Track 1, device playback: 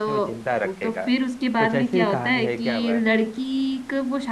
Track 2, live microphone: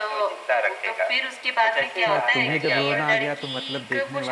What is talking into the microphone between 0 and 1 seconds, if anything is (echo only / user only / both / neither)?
echo only